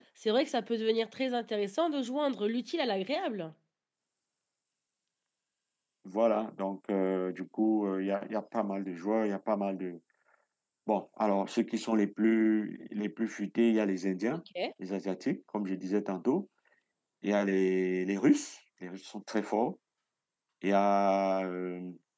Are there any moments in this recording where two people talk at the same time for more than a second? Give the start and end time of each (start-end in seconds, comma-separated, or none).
none